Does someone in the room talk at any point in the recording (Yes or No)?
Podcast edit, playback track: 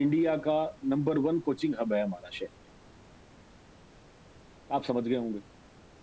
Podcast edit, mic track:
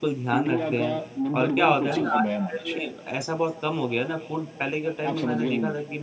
Yes